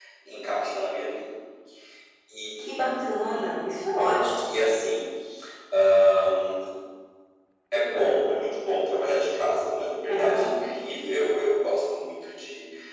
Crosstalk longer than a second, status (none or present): none